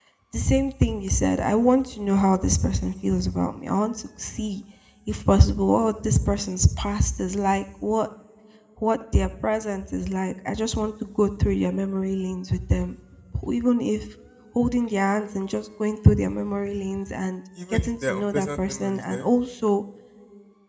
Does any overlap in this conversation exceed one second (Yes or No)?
Yes